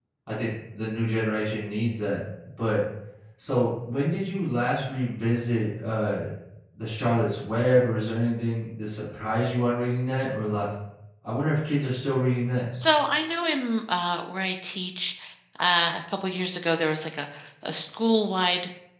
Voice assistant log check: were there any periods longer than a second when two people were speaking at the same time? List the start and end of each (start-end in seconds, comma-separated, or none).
none